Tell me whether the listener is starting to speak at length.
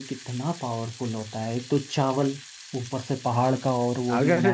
Yes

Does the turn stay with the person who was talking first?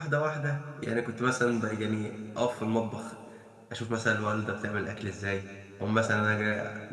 Yes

